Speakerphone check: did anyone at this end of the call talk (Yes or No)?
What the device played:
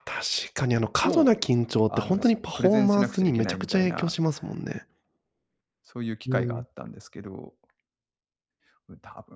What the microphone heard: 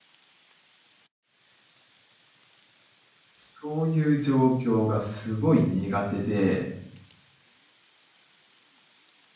Yes